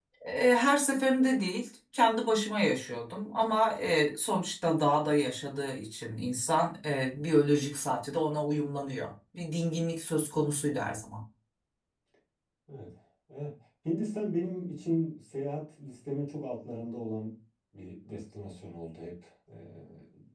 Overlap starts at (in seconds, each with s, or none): none